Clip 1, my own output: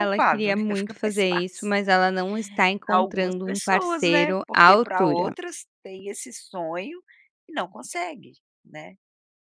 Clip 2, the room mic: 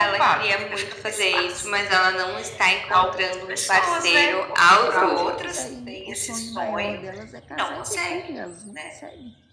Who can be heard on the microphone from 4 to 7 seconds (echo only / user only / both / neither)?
both